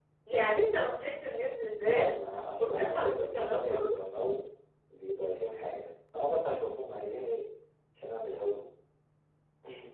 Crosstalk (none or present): present